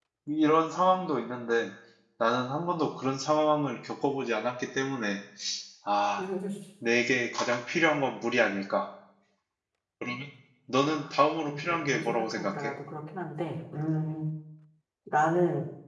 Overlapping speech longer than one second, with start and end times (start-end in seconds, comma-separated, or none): 10.9-12.7